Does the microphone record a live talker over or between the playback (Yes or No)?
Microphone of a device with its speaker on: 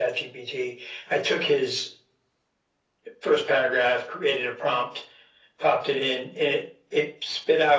No